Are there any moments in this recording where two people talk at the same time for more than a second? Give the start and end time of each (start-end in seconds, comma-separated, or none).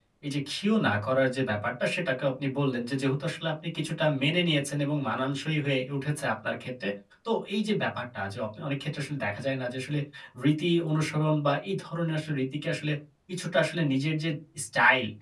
none